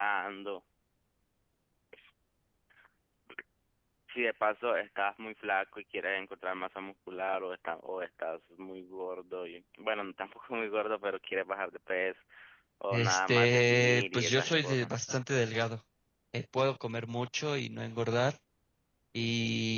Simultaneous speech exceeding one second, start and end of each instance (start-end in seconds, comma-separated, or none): 12.9-14.9